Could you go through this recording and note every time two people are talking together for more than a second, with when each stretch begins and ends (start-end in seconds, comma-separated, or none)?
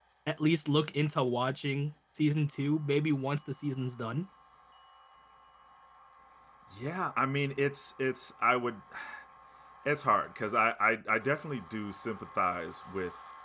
none